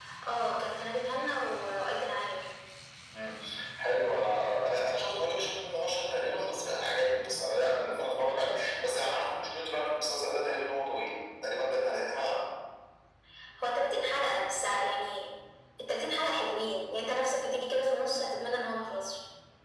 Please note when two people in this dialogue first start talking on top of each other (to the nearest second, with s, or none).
none